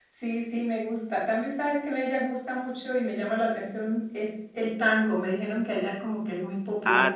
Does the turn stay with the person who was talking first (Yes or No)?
No